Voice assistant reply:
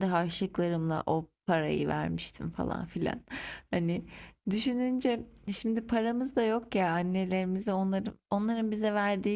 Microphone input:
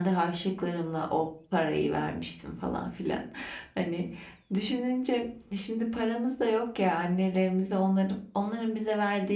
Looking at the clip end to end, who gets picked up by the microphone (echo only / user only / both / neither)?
echo only